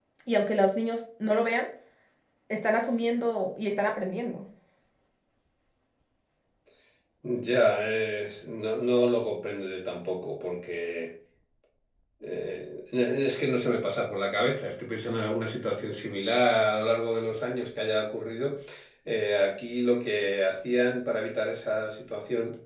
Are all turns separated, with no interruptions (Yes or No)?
Yes